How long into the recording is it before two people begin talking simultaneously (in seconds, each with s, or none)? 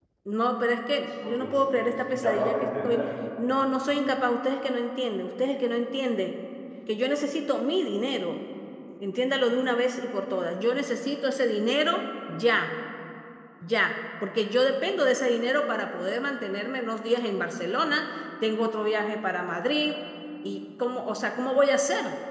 1.2 s